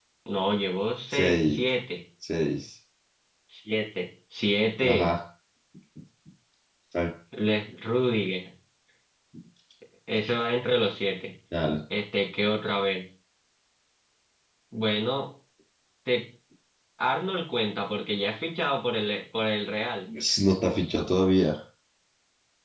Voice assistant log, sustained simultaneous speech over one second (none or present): none